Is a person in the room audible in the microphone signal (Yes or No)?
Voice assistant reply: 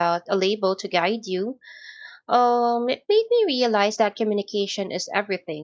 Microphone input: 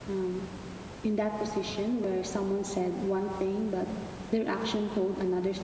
Yes